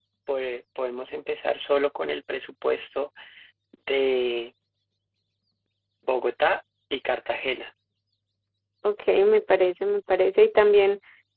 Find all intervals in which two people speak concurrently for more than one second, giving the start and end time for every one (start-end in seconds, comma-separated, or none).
none